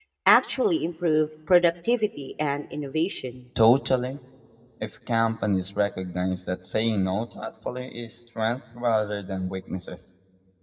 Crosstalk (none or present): none